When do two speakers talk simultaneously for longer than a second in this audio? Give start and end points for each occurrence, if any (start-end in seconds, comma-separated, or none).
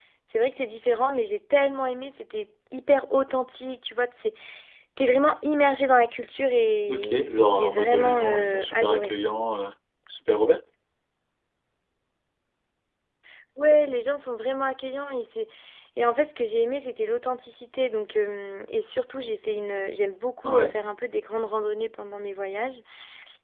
6.9-9.1